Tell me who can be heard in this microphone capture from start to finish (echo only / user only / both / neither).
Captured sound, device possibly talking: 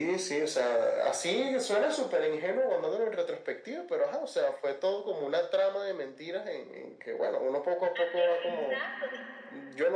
both